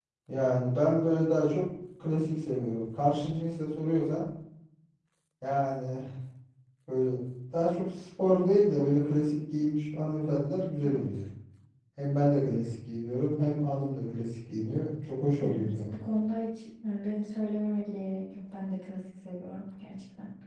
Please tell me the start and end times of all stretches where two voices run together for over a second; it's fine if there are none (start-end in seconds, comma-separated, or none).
none